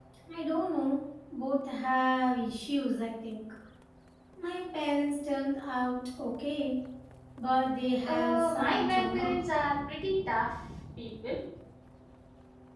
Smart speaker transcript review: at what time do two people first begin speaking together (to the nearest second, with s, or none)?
8 s